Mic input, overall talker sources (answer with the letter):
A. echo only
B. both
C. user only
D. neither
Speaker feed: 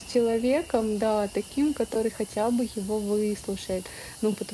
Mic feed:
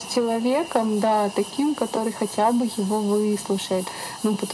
A